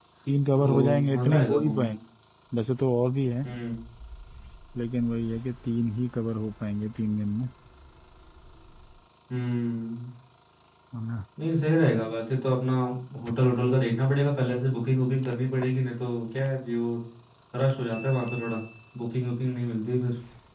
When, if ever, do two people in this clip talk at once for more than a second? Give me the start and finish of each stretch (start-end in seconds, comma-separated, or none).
0.6-2.0